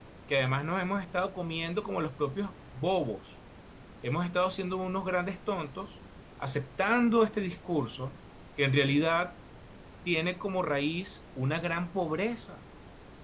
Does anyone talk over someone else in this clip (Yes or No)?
No